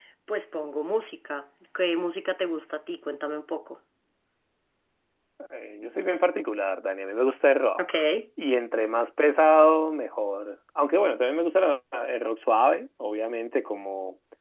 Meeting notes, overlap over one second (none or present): none